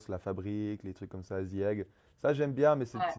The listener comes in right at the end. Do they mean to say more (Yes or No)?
No